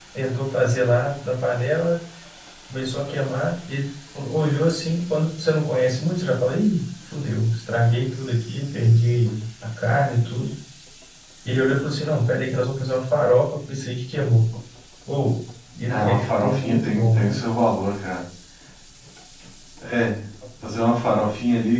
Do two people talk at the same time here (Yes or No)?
Yes